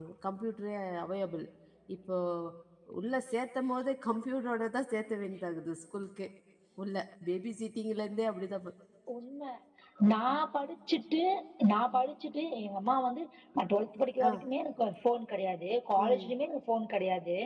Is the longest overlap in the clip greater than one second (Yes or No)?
No